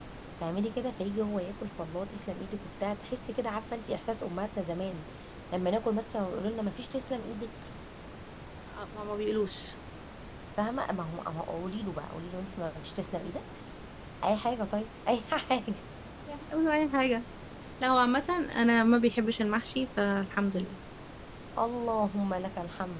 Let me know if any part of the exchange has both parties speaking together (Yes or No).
No